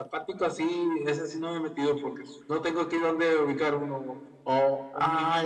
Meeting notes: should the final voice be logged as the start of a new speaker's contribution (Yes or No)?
No